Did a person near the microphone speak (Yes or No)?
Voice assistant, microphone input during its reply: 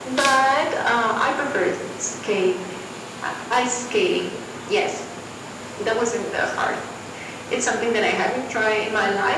No